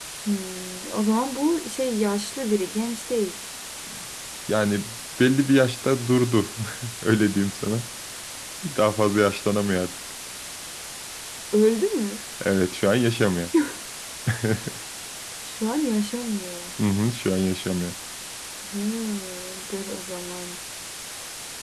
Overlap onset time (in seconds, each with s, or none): none